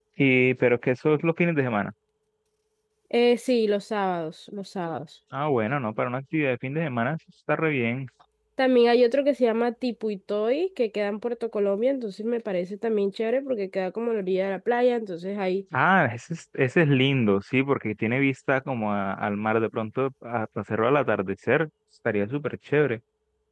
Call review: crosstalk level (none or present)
none